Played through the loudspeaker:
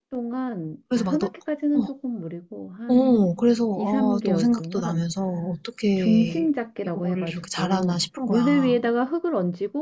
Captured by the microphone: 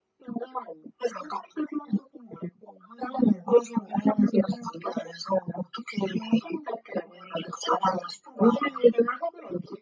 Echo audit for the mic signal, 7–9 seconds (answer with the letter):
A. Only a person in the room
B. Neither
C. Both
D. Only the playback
D